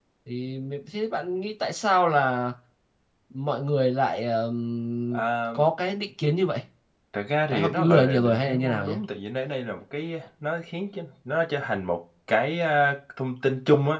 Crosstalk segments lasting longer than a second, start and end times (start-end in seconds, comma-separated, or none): 7.5-8.9